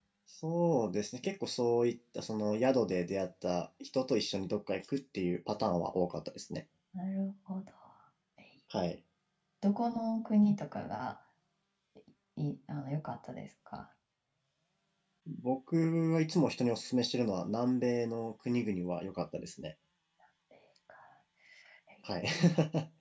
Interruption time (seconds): none

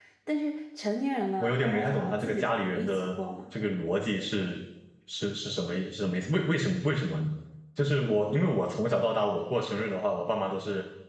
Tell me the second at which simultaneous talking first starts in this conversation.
1.4 s

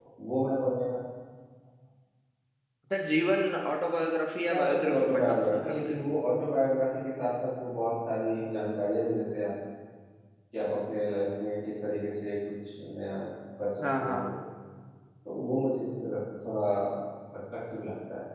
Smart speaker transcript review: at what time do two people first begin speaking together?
4.5 s

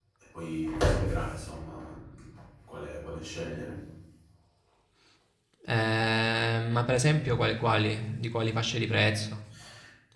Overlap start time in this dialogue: none

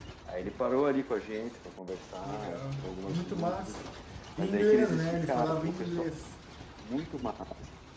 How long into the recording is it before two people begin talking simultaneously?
2.2 s

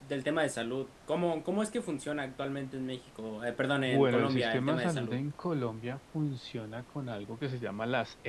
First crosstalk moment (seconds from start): 3.9 s

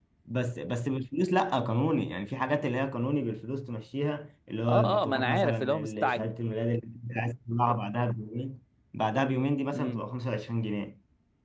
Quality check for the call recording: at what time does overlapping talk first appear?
4.7 s

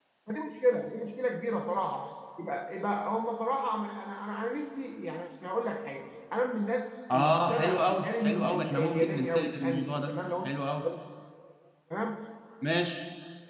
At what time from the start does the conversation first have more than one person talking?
7.1 s

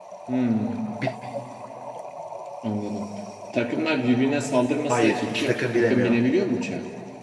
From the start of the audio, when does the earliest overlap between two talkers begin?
4.8 s

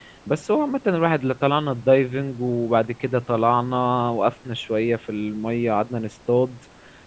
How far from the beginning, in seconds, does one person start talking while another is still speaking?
none

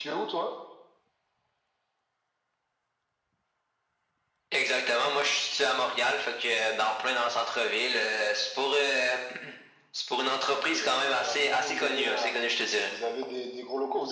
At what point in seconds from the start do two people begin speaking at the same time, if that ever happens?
10.5 s

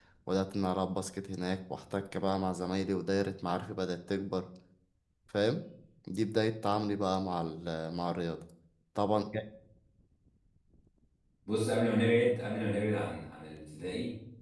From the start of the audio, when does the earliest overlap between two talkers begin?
none

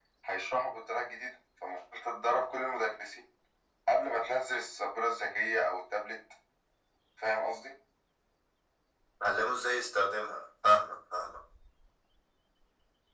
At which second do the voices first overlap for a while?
none

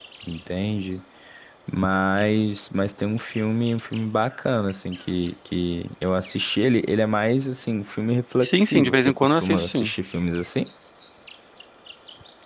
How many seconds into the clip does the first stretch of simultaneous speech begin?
8.4 s

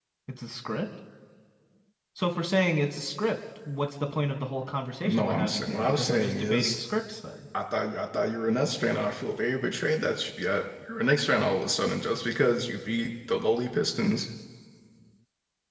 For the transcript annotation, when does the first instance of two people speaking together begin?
5.0 s

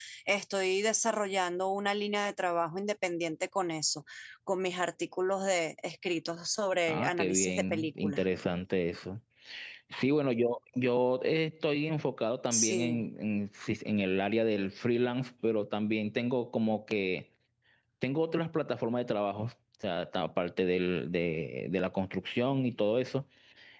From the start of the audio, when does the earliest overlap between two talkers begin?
6.9 s

